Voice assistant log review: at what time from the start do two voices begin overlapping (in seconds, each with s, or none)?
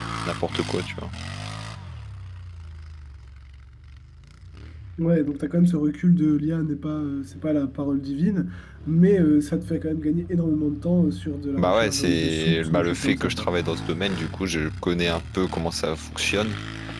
11.6 s